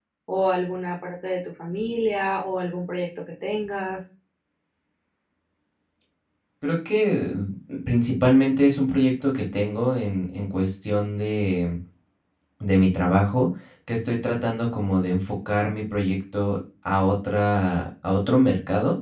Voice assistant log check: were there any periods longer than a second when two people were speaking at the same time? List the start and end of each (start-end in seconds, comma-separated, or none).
none